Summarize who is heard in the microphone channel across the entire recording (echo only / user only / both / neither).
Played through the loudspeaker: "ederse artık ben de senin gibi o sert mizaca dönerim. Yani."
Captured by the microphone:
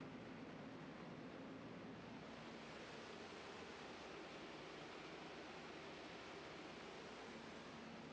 neither